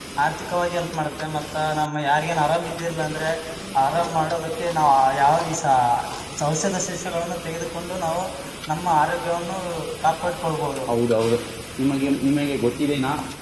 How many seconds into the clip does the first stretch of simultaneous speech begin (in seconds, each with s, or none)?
none